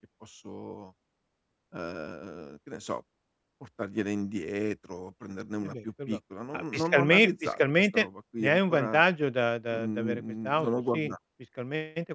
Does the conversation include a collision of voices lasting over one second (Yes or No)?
Yes